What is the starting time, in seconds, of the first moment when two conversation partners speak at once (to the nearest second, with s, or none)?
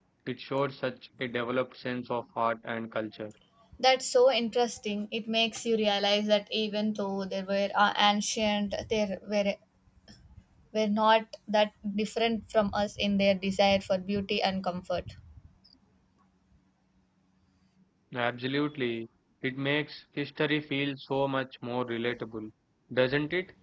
none